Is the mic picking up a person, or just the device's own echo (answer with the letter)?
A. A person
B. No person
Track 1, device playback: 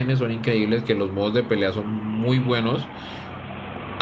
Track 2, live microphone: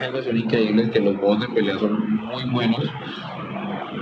B